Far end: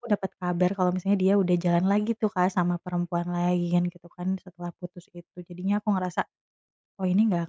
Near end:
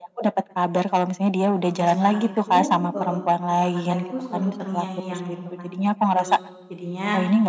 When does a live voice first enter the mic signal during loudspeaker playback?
1.6 s

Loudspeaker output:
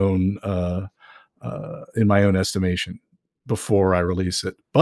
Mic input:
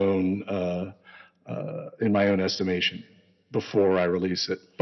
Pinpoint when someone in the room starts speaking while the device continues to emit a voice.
none

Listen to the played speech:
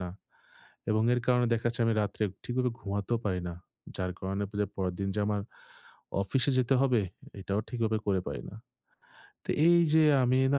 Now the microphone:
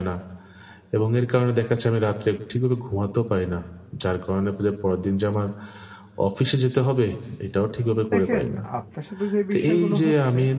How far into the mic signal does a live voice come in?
8.1 s

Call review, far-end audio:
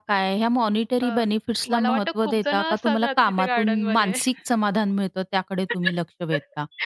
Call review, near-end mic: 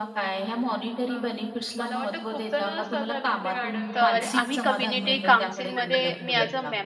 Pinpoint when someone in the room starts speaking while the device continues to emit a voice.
3.9 s

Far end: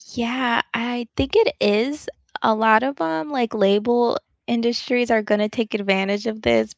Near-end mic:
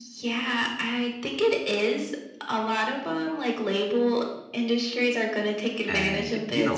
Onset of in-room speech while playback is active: 5.9 s

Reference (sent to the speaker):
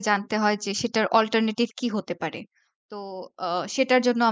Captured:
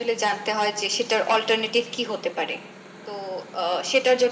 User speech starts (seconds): none

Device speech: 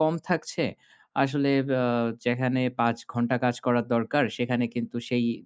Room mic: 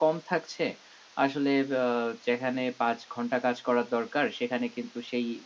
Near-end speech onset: none

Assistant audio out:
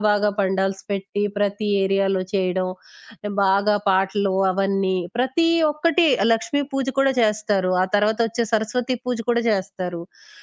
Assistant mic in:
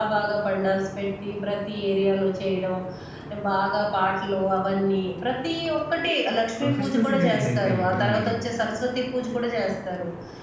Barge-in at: 6.6 s

